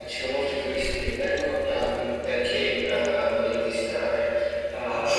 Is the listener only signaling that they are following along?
Yes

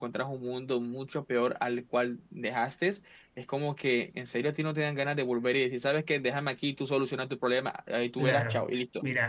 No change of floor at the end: No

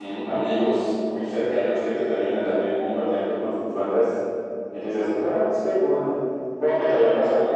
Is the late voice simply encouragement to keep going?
Yes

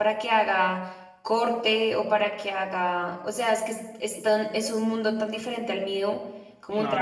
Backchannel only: No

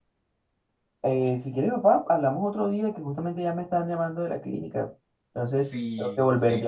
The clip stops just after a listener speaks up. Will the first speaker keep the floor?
No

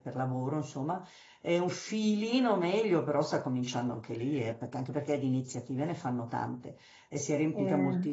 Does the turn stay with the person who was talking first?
Yes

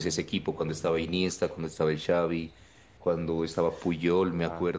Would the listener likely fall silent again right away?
Yes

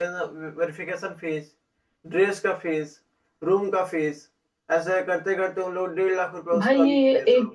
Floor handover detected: Yes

